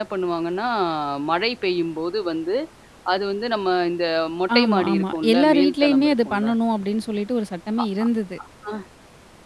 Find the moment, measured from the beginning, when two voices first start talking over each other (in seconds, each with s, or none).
4.5 s